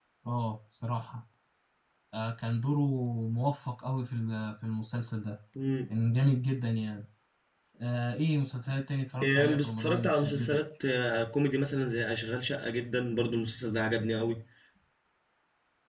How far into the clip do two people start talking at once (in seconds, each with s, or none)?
9.2 s